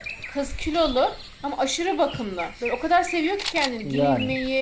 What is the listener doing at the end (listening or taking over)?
listening